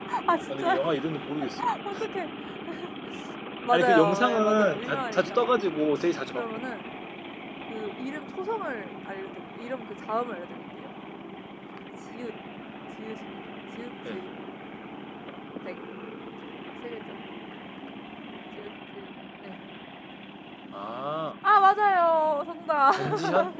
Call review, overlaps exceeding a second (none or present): present